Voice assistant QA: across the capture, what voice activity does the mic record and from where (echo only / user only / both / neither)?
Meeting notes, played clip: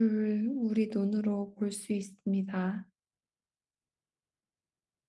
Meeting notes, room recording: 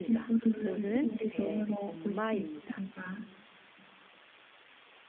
both